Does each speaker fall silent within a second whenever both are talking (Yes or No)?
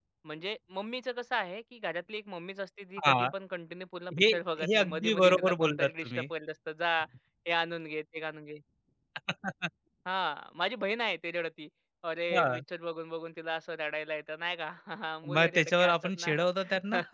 No